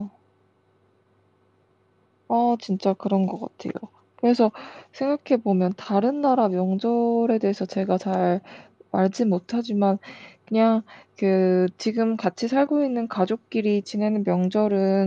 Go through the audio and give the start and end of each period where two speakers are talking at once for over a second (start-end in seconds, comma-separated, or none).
none